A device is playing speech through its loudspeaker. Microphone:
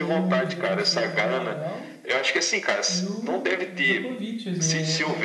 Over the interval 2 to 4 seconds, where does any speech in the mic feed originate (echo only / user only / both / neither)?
both